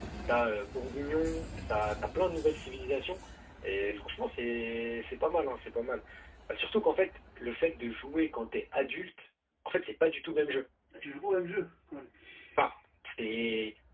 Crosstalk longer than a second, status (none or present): none